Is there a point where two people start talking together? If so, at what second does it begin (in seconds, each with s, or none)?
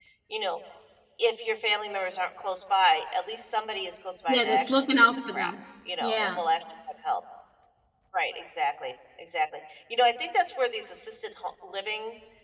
4.3 s